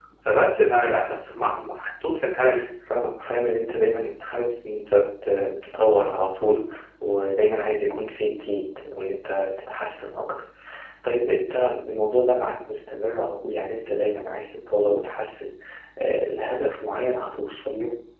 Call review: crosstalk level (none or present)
none